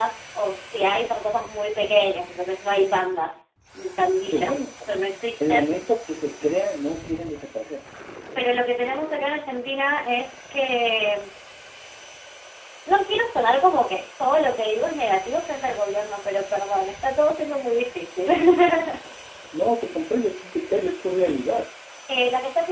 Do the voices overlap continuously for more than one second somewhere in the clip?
No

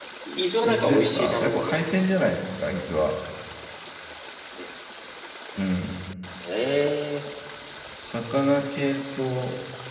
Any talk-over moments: Yes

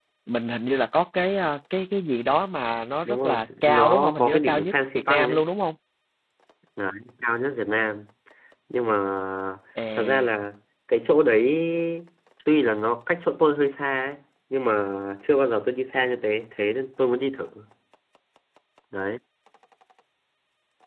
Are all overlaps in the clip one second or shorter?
No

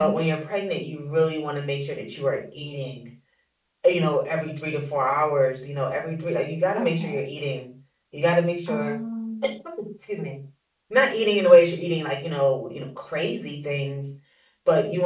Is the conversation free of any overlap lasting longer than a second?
Yes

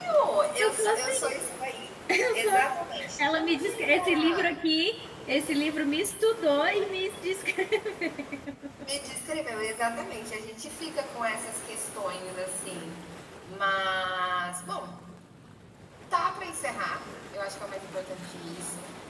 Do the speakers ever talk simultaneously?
Yes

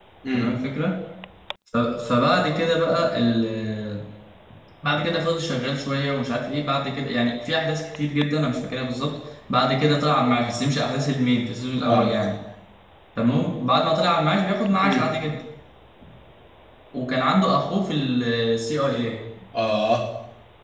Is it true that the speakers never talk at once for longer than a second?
Yes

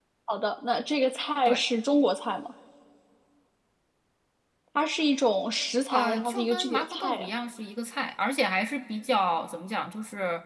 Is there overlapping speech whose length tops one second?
Yes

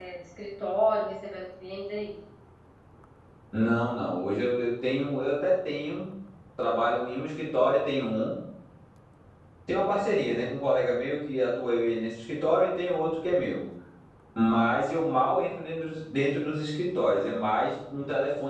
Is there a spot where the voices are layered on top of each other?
No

